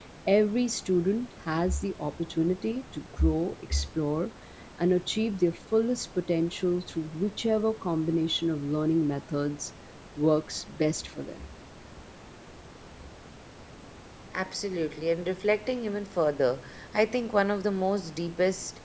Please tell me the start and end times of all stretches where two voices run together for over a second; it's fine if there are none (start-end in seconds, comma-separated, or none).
none